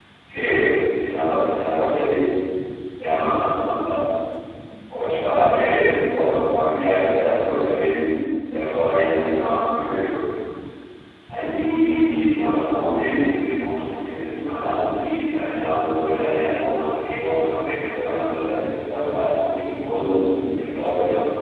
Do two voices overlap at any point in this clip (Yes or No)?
No